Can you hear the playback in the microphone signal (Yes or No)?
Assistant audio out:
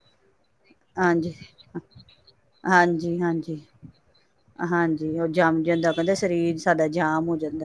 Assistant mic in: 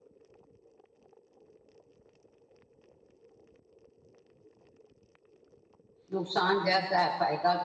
No